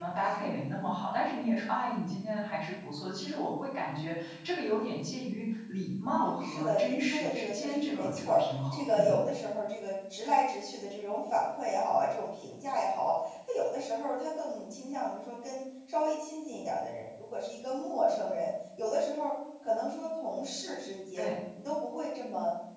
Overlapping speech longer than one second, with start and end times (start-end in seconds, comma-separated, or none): 6.4-9.2